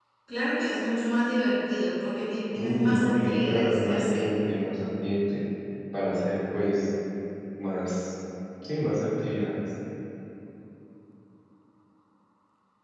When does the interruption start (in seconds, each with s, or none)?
2.5 s